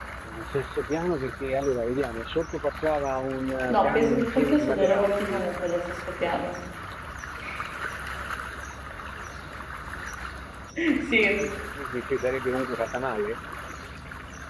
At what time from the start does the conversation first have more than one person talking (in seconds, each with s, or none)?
3.7 s